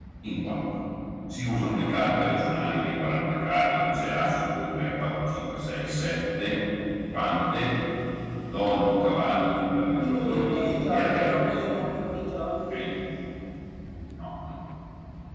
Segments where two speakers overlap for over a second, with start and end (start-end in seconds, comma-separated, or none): 10.0-11.3